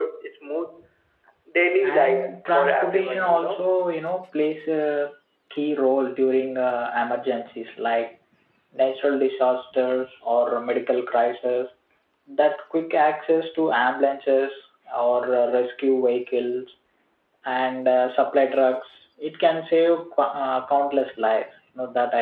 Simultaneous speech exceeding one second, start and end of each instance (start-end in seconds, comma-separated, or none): 2.0-3.6